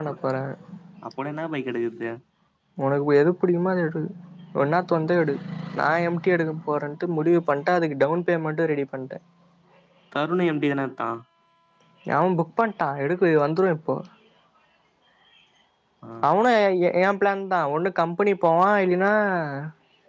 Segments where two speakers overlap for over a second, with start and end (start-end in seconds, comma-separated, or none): none